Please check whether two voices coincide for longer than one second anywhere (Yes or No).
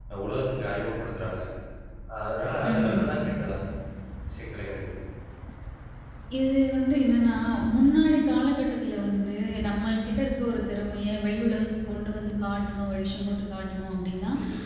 No